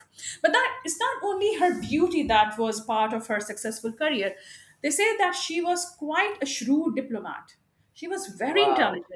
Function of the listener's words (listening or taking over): taking over